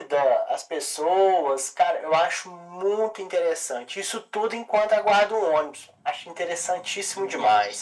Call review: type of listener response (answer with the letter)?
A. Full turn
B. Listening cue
A